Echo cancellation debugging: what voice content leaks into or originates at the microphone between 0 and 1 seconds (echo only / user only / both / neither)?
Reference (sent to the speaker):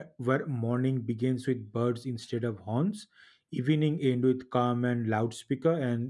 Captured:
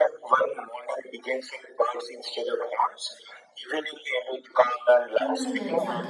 echo only